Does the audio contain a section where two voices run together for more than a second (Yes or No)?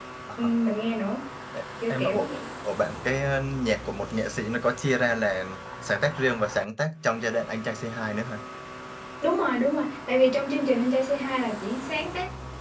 No